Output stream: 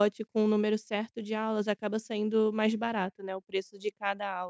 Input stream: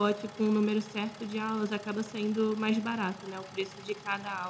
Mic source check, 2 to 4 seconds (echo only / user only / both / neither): echo only